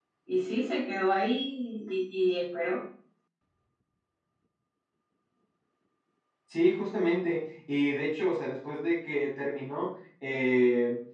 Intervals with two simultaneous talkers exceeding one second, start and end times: none

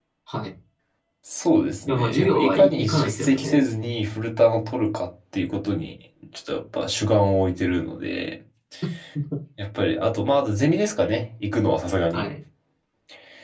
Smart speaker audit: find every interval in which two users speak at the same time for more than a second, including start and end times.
1.9-3.6

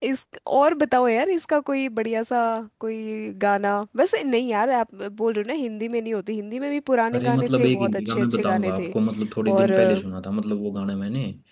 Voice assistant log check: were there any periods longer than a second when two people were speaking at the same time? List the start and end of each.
7.1-8.9

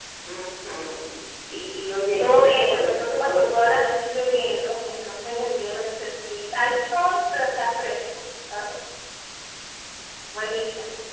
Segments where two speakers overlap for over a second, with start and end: 2.2-3.5

